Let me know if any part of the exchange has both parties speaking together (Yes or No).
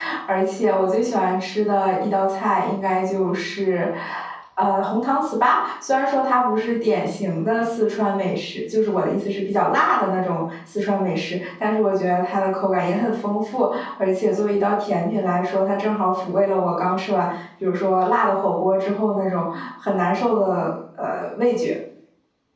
No